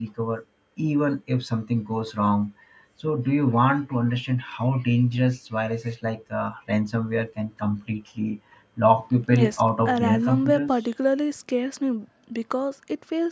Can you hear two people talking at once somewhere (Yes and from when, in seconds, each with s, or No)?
Yes, from 9.3 s